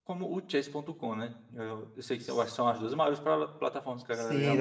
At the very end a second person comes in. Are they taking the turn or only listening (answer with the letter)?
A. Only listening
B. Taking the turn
B